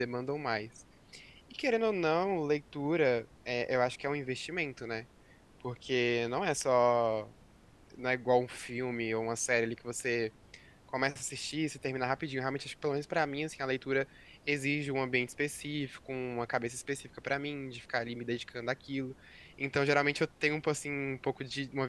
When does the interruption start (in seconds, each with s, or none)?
none